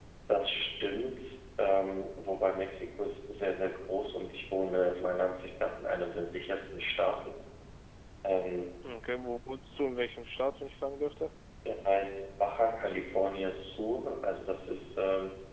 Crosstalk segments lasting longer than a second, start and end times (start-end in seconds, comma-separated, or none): none